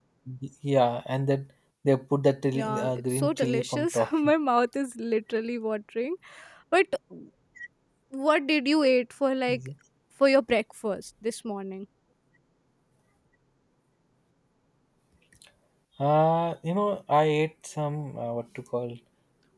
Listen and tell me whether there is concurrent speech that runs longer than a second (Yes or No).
Yes